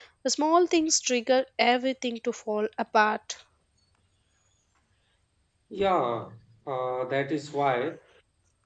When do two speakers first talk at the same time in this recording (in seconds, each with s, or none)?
none